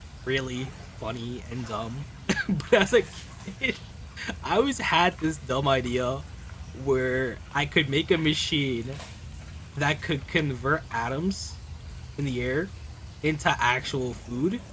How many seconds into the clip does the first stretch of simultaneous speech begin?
none

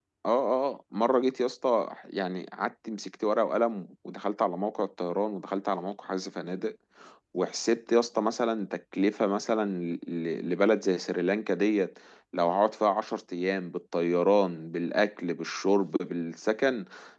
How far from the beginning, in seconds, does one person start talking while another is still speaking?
none

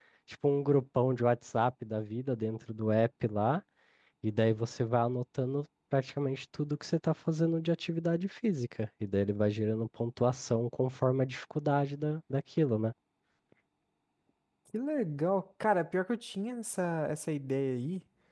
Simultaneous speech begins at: none

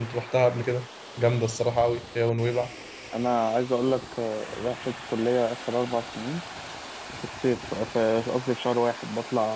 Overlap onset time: none

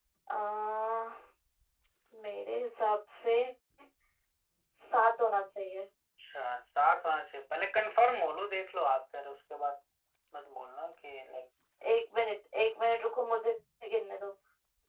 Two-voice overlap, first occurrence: none

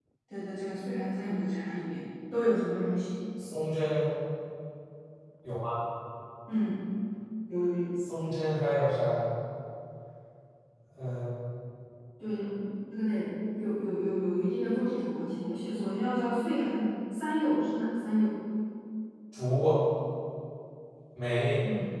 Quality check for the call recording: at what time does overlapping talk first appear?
none

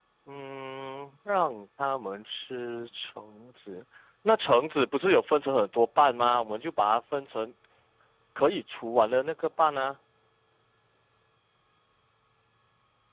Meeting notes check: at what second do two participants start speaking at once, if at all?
none

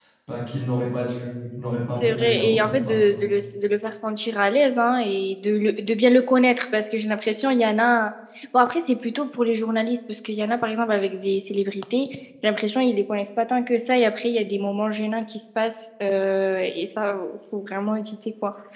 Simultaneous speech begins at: 2.0 s

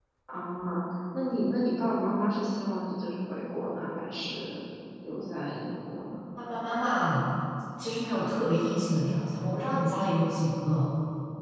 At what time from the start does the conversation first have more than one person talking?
none

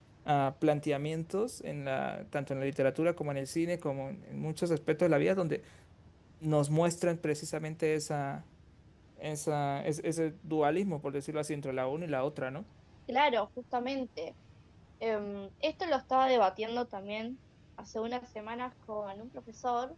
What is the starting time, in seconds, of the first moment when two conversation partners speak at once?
none

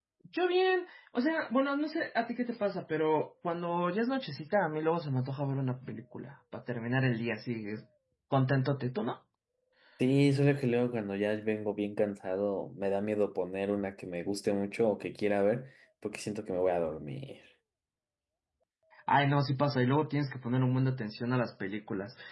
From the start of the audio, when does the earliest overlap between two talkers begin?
none

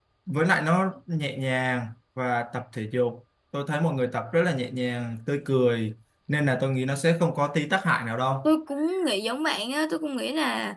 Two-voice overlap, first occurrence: none

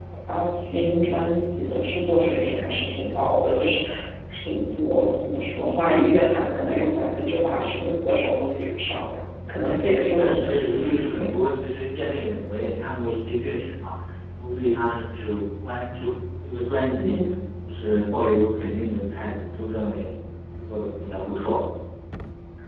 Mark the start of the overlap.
9.6 s

